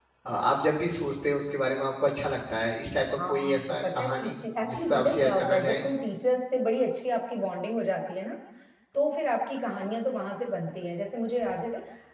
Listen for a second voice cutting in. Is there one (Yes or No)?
Yes